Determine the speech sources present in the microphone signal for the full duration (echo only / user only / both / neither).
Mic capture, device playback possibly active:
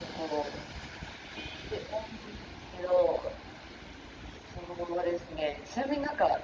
echo only